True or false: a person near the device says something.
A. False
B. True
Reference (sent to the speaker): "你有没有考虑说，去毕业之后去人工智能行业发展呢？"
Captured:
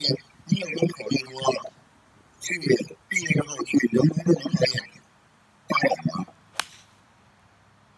A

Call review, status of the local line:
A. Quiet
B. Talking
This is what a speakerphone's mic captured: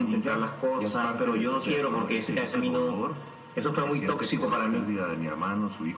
A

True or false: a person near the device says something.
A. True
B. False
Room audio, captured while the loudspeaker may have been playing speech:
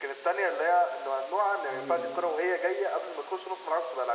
A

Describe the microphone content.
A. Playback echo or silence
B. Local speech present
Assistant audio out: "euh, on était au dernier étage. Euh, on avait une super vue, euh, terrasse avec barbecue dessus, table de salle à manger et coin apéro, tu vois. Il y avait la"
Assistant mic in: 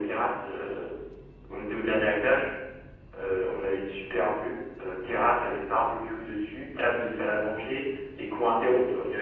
A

